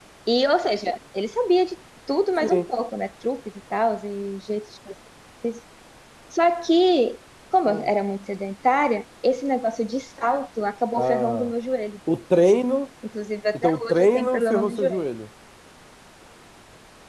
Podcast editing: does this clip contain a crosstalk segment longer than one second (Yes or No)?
Yes